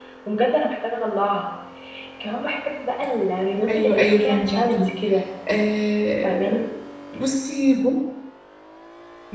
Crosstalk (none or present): present